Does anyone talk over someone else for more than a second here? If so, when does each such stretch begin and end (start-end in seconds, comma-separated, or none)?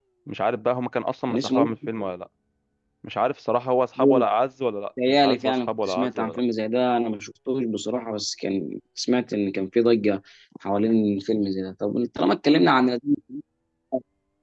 5.1-6.4